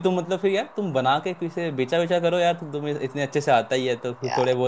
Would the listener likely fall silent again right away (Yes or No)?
Yes